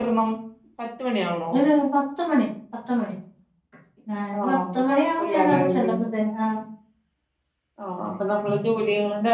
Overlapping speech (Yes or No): Yes